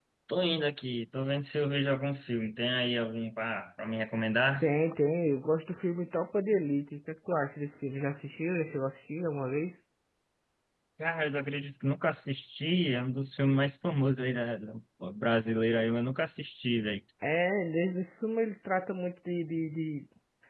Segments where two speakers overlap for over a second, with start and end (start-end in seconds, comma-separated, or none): none